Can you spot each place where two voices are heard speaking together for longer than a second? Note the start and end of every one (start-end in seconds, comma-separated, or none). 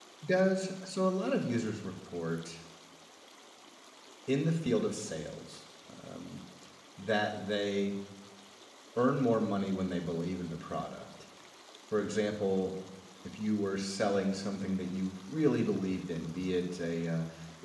none